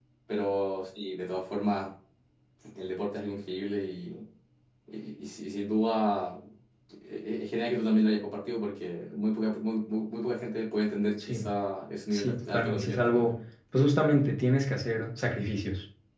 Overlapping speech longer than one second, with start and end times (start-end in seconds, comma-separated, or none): 12.1-13.4